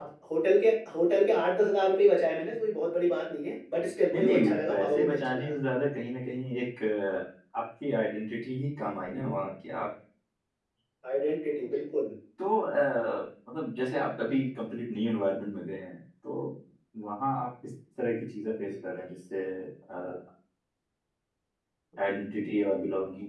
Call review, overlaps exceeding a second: present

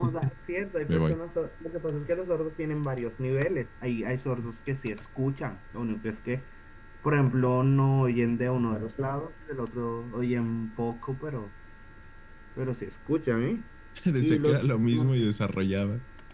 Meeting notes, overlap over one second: none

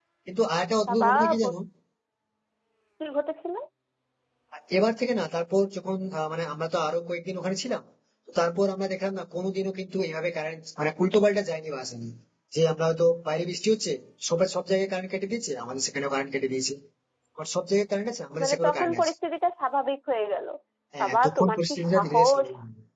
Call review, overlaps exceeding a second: present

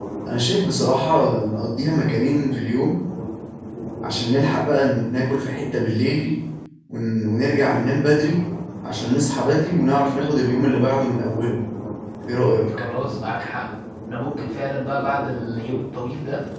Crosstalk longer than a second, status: none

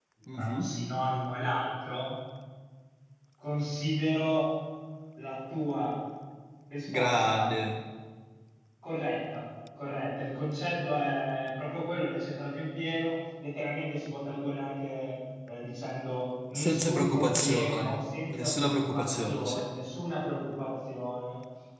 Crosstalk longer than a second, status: present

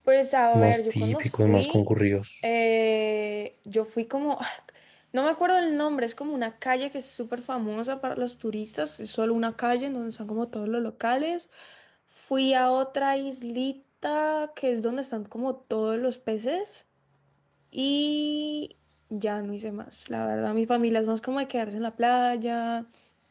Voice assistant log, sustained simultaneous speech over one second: present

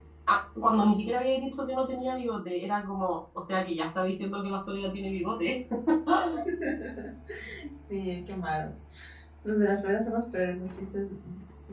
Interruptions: none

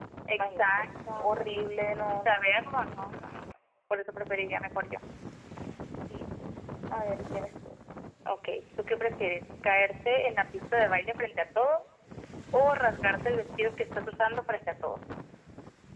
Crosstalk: present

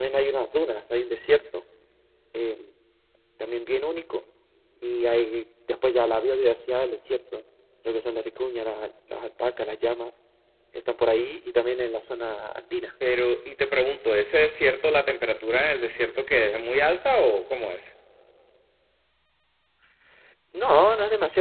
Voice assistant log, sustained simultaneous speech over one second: none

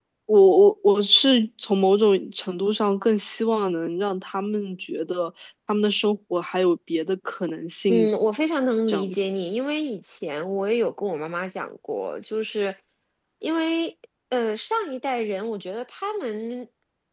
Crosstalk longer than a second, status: none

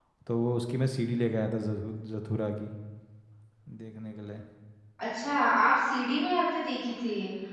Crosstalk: none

